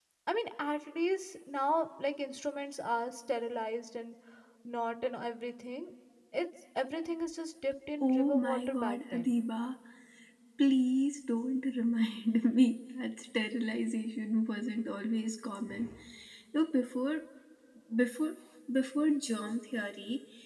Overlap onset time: 8.0 s

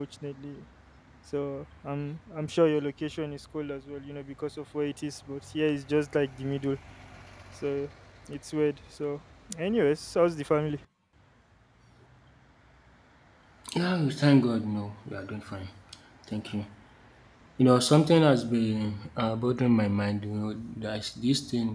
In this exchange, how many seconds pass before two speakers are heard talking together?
none

